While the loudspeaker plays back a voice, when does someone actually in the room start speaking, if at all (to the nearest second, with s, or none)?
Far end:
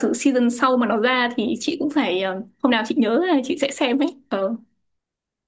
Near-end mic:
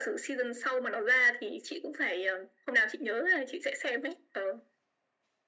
none